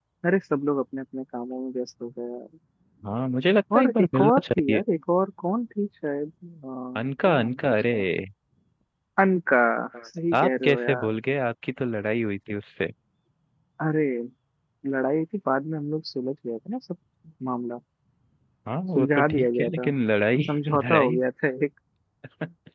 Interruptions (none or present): present